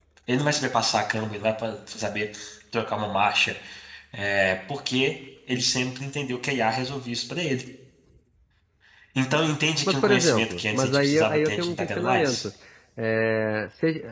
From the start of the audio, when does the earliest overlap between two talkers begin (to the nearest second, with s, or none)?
10 s